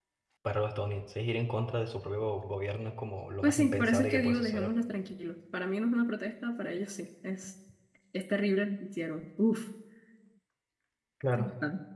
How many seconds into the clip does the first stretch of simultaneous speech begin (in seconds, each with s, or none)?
3.4 s